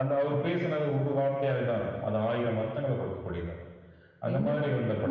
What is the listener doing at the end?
taking over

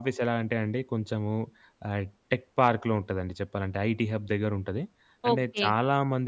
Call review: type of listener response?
listening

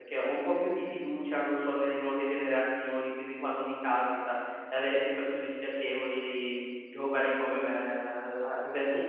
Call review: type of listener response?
taking over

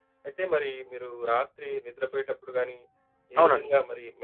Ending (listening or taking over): listening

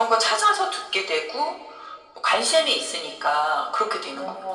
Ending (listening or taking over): taking over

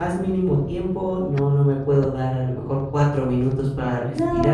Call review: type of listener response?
taking over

